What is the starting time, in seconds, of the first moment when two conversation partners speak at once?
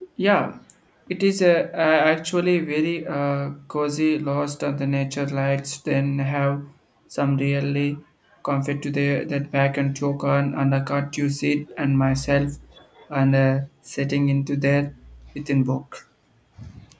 none

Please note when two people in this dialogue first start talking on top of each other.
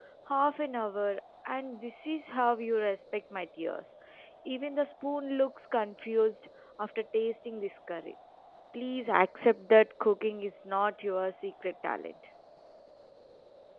none

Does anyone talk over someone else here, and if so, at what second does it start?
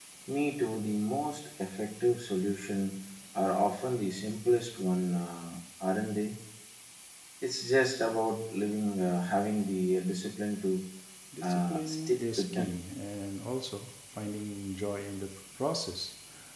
11 s

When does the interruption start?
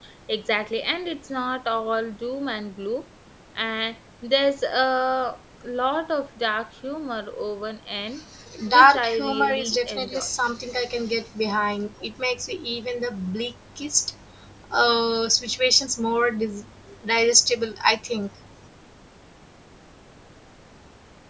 9 s

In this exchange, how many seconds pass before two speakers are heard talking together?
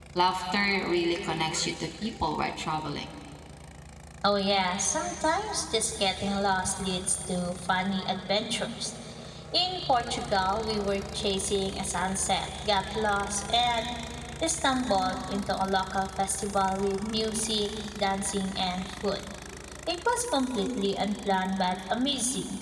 none

